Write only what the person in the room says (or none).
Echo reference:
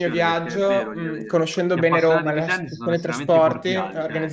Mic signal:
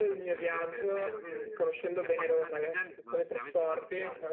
none